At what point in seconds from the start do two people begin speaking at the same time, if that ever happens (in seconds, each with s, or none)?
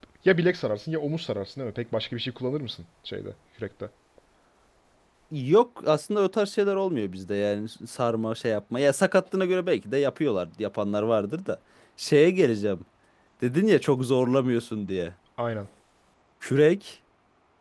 none